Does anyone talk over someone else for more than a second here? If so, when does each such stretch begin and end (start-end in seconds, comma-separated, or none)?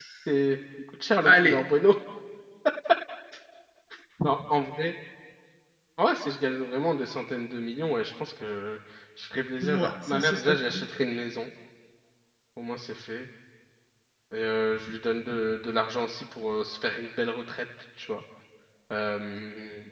9.6-10.9